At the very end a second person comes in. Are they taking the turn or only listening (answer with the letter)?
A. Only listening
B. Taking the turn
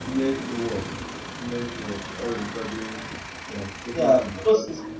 B